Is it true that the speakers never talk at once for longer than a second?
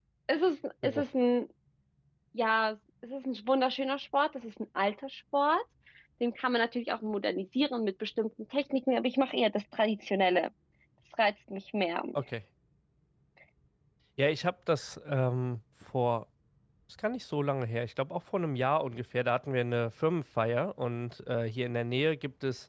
Yes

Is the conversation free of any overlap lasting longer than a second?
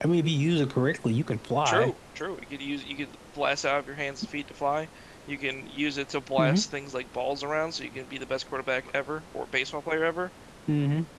Yes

